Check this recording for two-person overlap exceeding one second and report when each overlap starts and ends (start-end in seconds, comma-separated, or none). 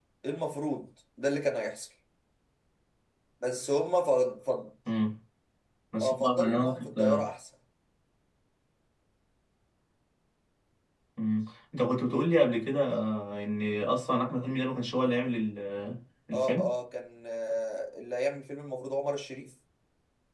6.0-7.3